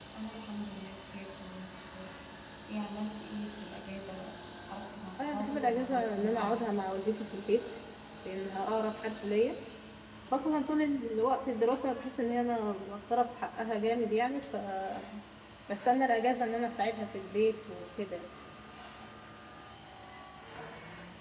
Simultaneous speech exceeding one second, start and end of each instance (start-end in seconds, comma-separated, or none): 5.2-6.6